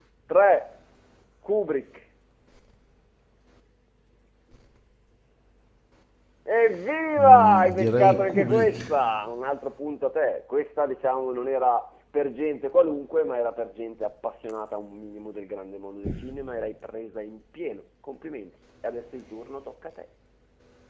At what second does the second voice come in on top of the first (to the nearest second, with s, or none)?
7 s